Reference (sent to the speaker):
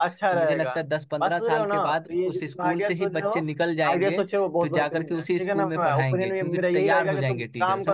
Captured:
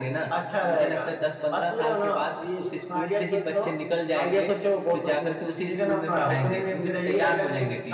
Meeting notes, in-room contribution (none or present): none